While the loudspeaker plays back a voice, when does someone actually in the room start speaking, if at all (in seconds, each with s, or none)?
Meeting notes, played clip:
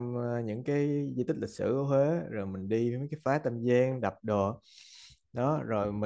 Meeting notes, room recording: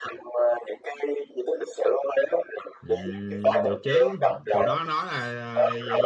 2.8 s